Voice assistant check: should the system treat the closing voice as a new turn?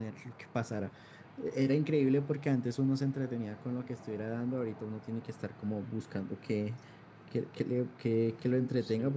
Yes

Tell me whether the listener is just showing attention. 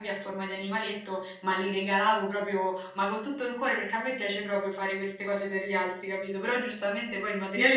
No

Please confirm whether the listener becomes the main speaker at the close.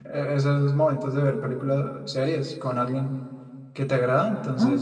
No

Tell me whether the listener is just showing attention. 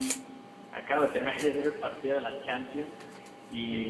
No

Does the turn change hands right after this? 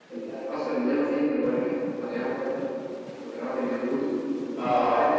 No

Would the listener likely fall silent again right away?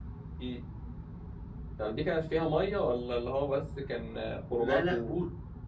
No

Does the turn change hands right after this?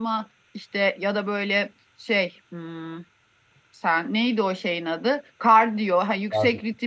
No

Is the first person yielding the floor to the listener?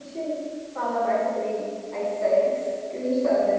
No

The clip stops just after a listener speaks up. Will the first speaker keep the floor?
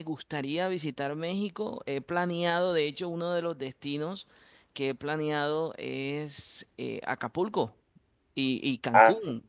Yes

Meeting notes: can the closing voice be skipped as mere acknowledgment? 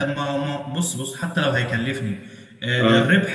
Yes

